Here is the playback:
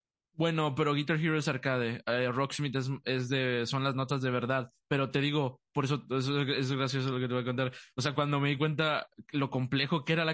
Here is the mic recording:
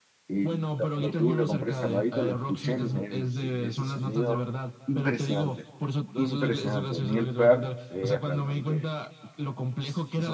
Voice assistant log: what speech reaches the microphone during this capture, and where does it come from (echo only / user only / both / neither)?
both